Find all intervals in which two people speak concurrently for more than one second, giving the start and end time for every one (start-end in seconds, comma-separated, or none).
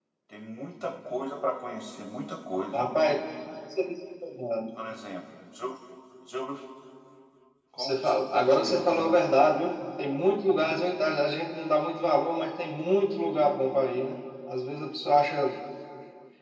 7.8-9.1